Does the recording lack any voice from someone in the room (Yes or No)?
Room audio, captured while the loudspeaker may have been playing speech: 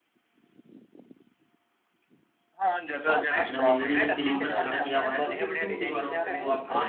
No